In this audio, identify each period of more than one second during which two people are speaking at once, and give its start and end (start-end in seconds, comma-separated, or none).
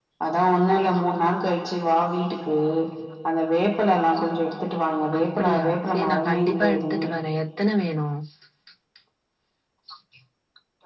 5.2-7.0